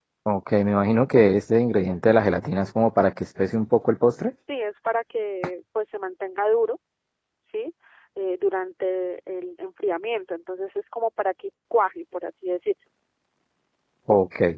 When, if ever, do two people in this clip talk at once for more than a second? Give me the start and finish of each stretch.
none

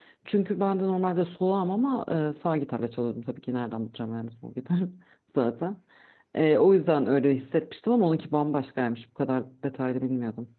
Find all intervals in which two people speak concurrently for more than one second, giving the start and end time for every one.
none

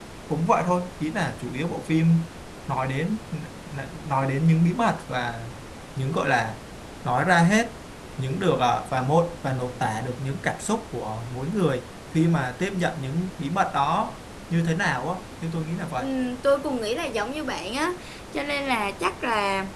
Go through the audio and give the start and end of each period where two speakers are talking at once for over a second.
none

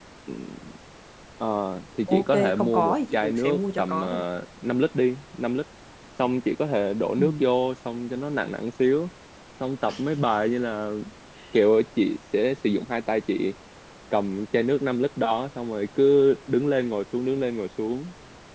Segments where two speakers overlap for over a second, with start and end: 2.1-4.0

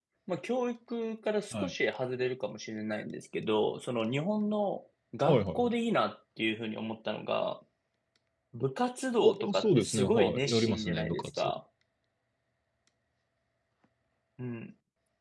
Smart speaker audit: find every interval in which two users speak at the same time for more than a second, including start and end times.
9.2-11.5

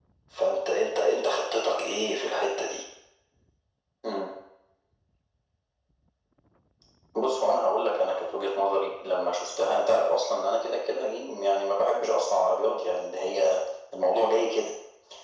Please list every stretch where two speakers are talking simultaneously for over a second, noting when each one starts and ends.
none

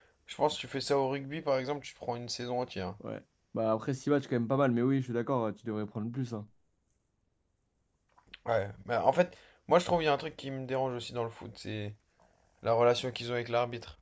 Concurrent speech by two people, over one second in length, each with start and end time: none

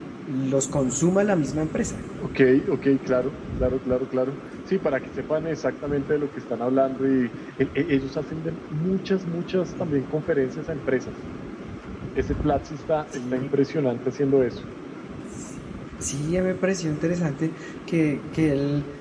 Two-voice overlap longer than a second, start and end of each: none

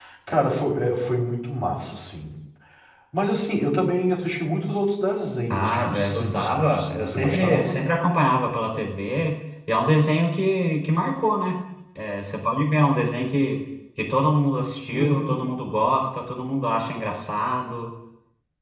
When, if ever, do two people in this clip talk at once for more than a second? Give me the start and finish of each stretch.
5.5-7.8

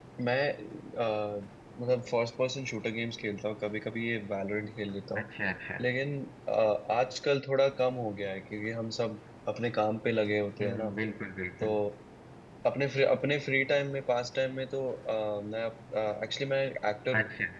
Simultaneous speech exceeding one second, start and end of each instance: none

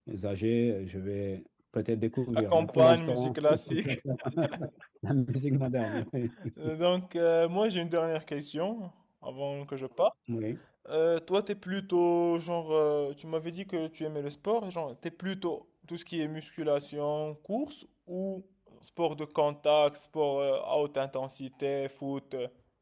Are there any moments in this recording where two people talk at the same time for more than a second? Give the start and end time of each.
2.3-4.0

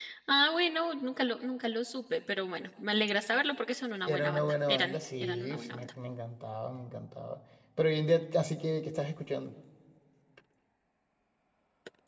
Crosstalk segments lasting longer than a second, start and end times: 4.1-5.9

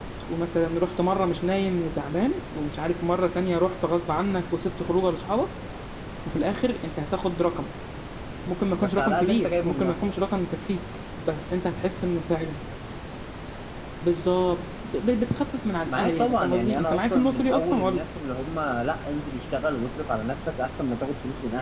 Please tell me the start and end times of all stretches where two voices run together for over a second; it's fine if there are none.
8.8-10.0, 15.9-18.0

